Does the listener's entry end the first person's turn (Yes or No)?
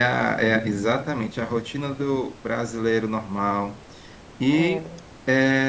No